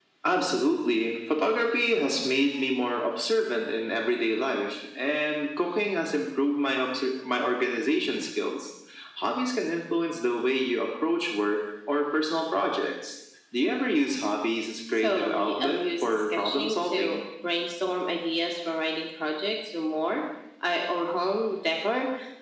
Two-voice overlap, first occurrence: 15 s

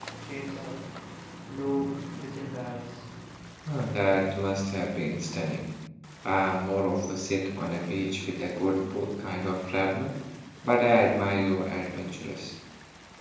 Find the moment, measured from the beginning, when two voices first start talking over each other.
none

